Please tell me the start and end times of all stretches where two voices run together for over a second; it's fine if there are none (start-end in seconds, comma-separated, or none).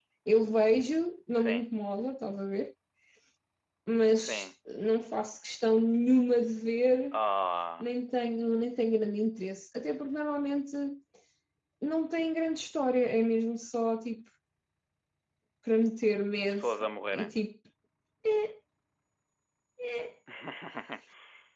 none